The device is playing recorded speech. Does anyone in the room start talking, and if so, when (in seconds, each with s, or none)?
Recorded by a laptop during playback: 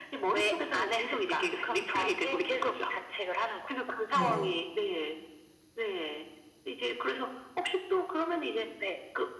4.1 s